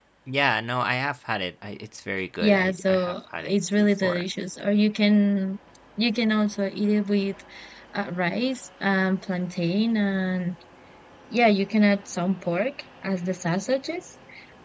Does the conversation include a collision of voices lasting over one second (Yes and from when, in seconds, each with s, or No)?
Yes, from 2.4 s